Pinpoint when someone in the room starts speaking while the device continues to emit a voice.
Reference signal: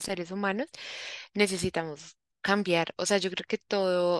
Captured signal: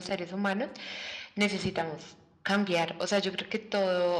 none

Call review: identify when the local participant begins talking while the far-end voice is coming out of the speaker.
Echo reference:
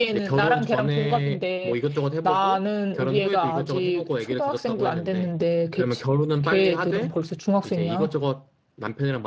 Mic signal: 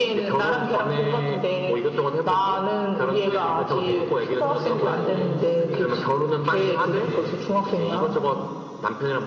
3.2 s

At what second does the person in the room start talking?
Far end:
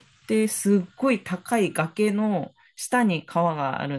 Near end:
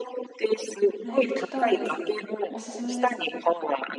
1.0 s

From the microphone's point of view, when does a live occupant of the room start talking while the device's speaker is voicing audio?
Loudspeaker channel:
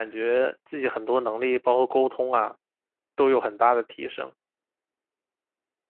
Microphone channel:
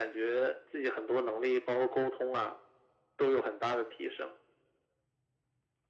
none

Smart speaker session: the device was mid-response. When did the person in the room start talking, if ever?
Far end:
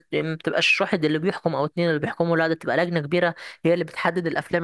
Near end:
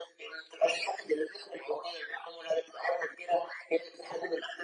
none

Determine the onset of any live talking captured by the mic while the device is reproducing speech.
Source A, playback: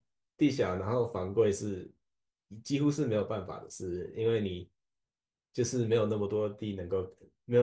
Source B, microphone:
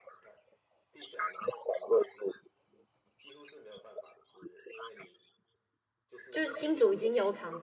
6.3 s

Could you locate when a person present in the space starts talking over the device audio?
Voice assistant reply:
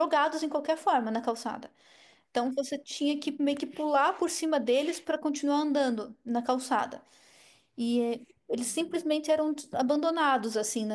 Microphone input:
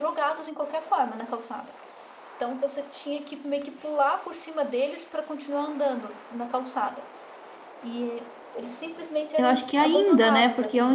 9.4 s

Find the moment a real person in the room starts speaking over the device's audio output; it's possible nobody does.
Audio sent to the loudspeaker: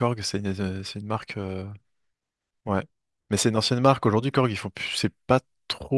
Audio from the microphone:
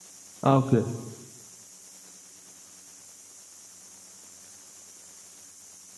0.4 s

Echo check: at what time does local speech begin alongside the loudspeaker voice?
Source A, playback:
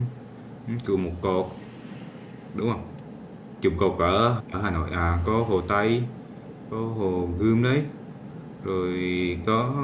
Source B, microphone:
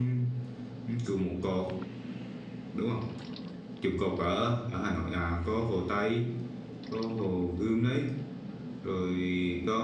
none

